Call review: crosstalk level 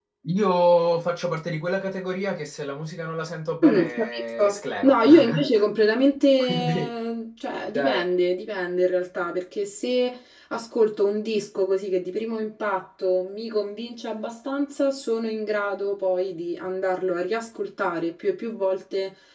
present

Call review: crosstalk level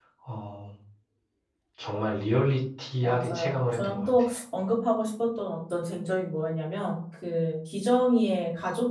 present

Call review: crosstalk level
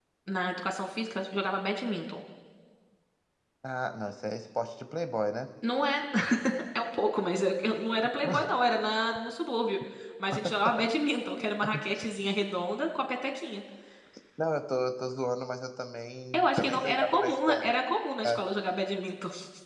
present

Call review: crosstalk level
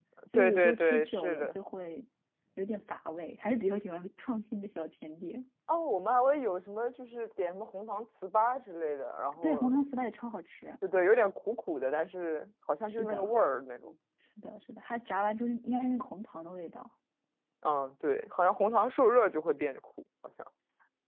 present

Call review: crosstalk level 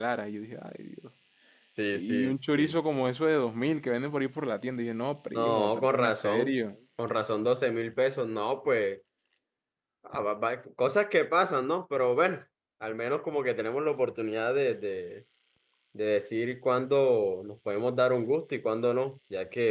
present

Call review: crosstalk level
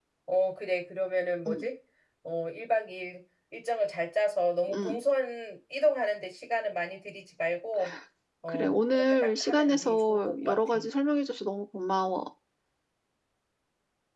present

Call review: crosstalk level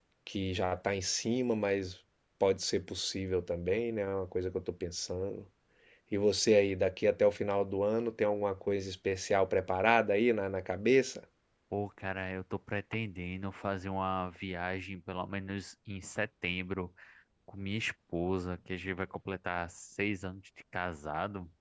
none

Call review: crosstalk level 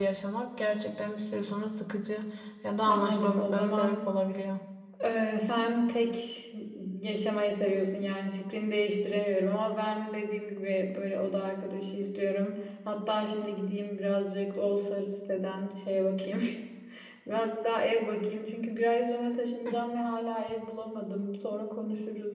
present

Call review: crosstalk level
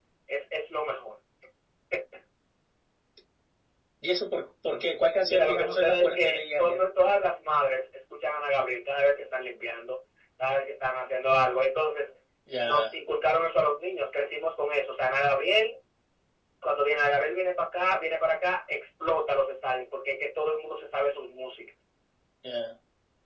present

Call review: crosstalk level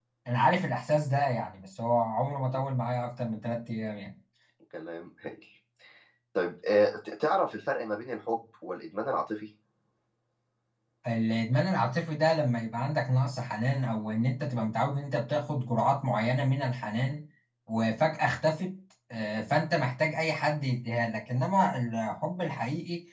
none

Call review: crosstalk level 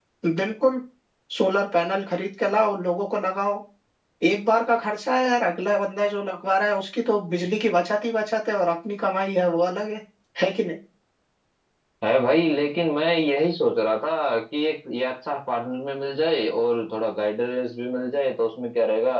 none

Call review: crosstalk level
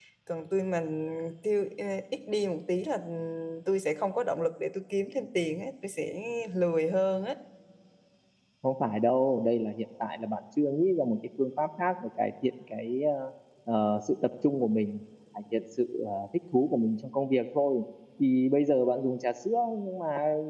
none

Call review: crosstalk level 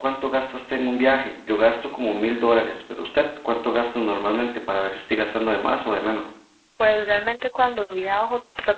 none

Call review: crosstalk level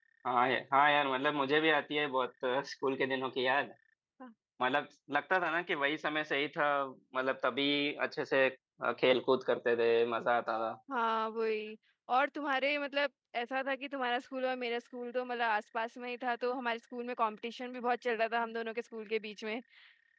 none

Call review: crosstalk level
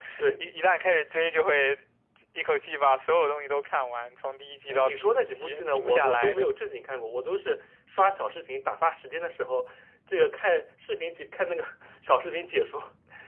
present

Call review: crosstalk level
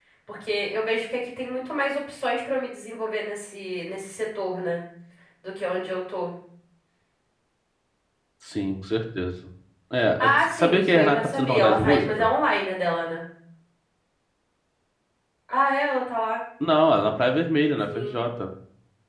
present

